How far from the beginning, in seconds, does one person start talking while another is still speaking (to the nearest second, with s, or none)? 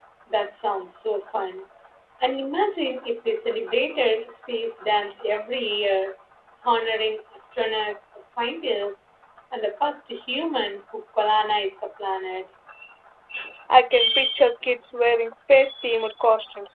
none